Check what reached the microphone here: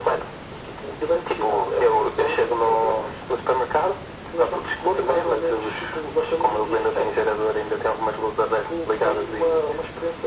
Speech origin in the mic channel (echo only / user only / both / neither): echo only